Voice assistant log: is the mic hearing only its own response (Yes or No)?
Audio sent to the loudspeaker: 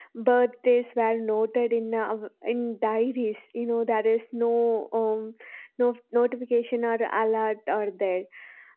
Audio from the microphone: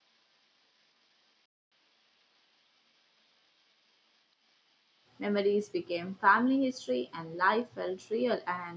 No